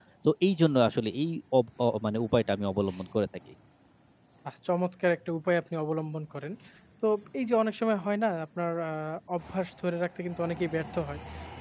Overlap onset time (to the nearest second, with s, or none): none